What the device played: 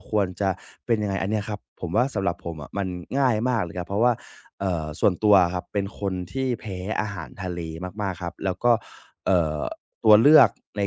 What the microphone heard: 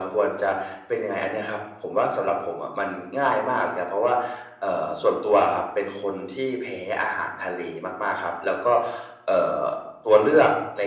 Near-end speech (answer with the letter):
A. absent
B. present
A